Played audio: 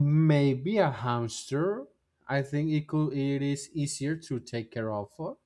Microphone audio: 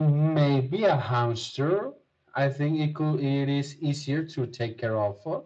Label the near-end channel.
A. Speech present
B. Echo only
B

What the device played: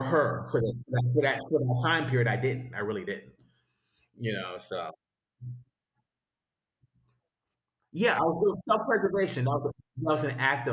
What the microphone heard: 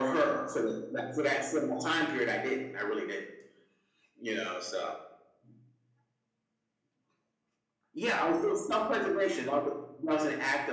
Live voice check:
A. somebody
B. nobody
B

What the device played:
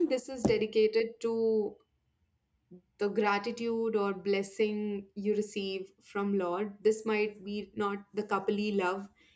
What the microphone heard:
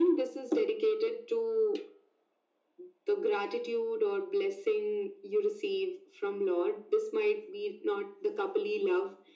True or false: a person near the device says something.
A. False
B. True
A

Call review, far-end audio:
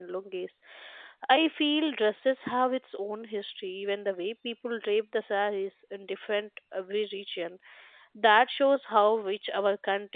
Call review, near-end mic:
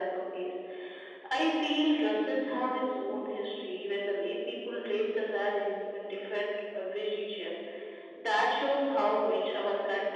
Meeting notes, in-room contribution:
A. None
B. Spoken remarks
A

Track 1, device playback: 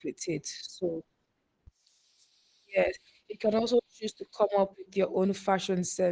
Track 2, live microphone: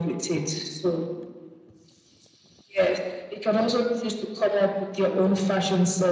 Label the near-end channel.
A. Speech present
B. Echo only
B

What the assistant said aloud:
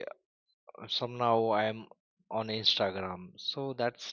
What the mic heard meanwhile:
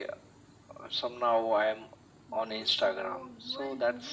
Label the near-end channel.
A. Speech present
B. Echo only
A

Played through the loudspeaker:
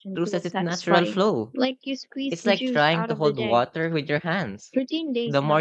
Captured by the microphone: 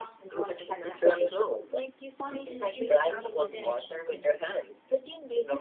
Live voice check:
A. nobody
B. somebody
B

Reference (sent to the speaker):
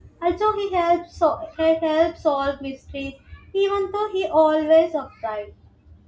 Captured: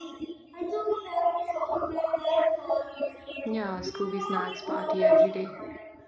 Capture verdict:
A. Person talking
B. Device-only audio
A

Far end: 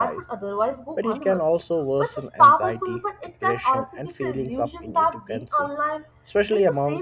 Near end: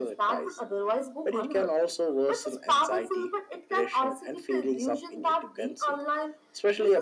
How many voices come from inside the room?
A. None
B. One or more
A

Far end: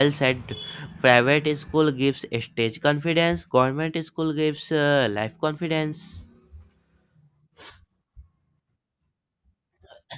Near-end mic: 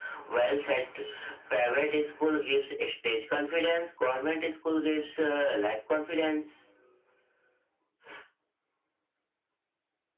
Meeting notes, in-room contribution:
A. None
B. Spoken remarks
A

